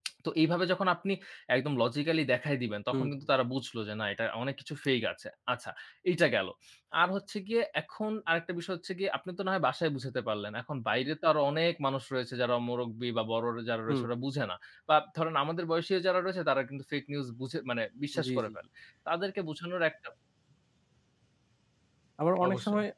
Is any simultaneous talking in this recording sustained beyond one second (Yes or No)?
No